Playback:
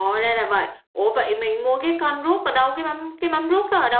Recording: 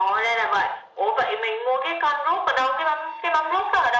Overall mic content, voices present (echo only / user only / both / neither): echo only